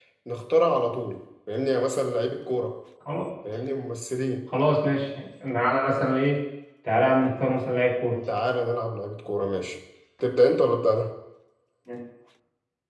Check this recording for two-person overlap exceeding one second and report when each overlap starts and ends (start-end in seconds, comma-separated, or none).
none